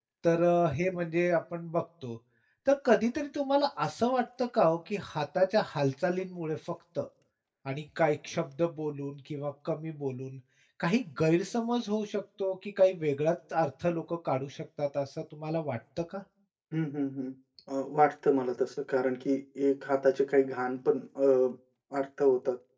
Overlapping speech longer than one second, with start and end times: none

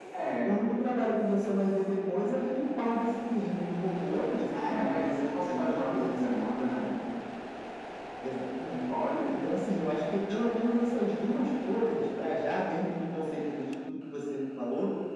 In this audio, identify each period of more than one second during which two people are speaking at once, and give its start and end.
4.5-6.8

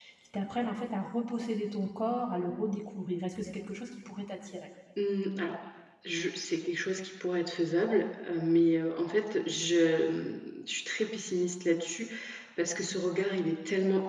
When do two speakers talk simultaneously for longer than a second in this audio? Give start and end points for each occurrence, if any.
none

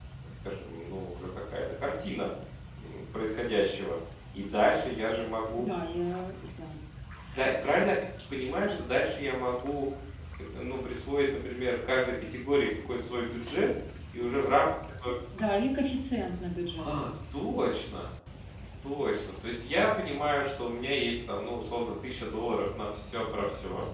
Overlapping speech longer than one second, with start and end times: none

